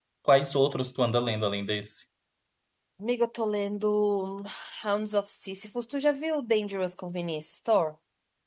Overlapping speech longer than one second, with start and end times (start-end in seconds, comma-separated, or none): none